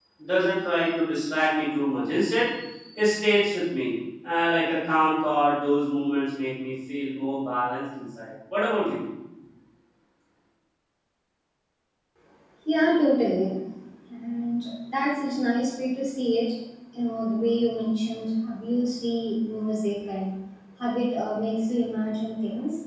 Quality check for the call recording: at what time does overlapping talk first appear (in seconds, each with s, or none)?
none